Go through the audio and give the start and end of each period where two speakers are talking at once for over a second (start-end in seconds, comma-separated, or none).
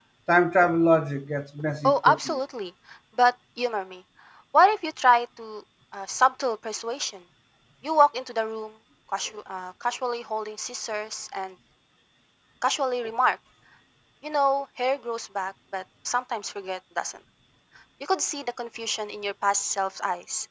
none